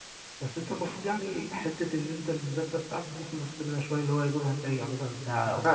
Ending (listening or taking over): taking over